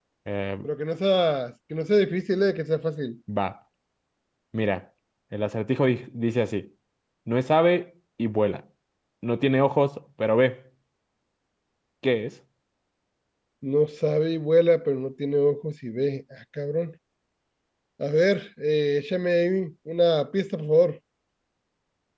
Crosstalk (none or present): none